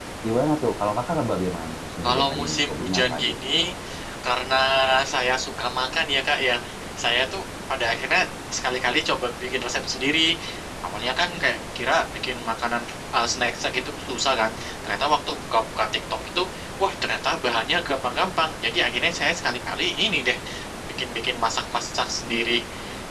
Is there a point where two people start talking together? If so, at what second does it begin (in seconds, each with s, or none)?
2.0 s